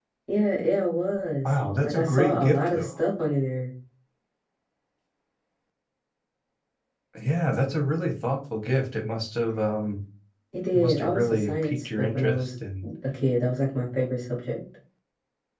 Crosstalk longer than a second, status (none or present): present